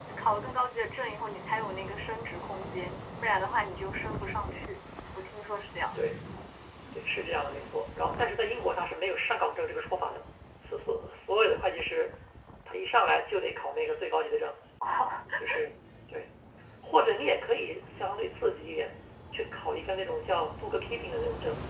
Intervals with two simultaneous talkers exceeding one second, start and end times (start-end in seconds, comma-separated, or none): none